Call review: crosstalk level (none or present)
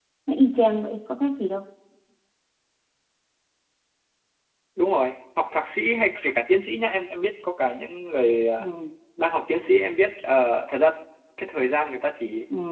none